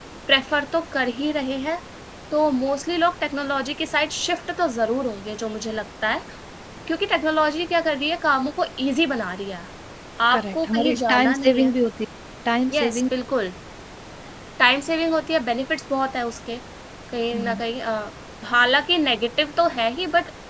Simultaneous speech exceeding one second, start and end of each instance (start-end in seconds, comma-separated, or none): 10.3-11.7